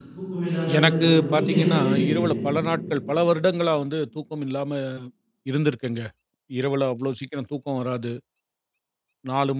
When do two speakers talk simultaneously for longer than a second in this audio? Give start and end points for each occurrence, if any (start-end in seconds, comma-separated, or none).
0.8-2.1